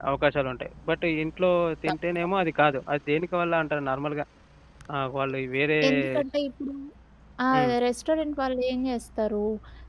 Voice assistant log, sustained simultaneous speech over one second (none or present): none